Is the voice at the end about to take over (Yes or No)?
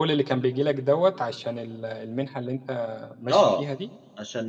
Yes